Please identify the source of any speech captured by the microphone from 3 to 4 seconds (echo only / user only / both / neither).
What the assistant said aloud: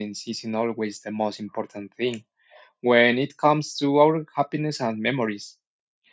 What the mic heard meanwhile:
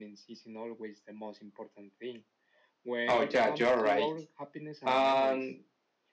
both